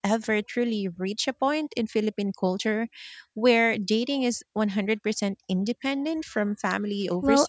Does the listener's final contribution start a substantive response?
Yes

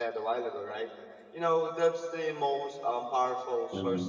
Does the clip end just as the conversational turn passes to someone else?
No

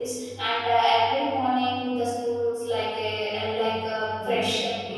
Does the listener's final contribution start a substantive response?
Yes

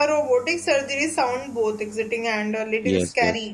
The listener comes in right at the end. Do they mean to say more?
No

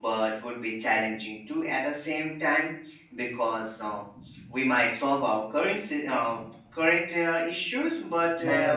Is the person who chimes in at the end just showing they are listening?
Yes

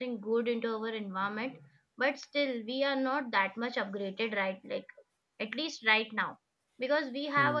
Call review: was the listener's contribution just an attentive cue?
Yes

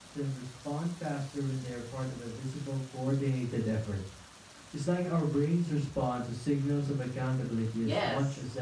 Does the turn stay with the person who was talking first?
No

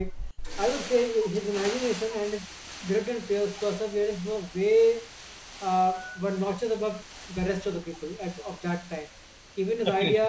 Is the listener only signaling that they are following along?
Yes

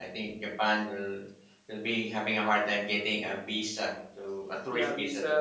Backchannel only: No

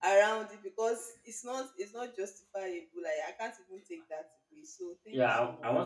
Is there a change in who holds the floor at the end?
Yes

